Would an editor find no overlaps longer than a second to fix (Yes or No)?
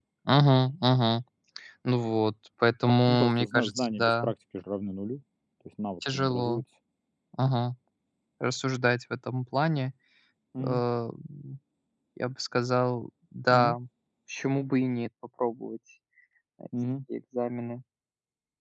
No